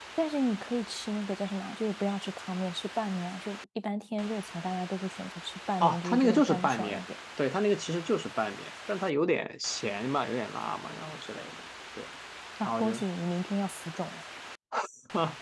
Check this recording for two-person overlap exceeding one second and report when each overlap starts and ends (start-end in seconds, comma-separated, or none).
5.8-7.0